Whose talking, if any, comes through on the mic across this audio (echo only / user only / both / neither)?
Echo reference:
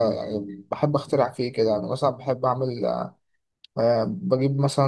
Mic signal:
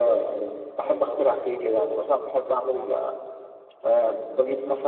both